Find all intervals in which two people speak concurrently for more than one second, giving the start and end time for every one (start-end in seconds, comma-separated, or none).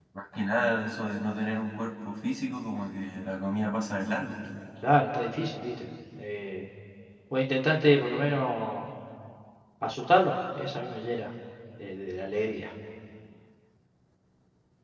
none